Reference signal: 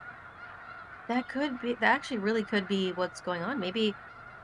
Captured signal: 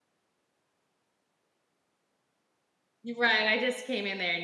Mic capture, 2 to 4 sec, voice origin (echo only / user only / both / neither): user only